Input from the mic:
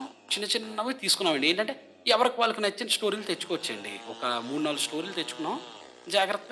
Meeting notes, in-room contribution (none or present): none